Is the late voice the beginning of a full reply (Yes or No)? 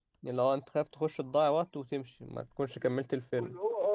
Yes